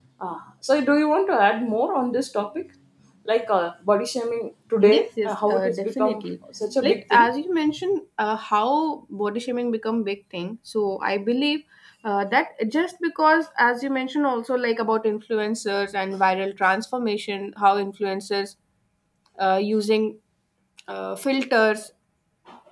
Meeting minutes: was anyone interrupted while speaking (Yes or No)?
Yes